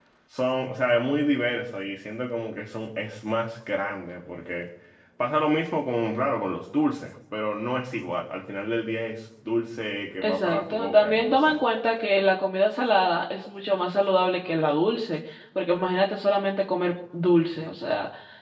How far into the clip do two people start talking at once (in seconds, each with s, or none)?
10.2 s